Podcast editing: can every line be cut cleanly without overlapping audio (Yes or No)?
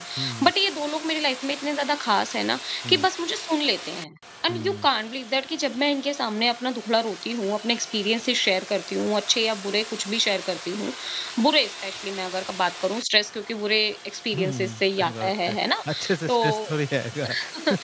No